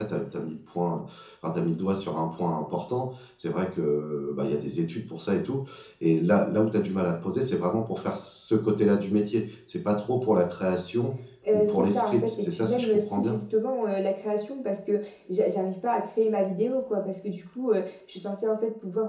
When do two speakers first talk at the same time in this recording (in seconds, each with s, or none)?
11.5 s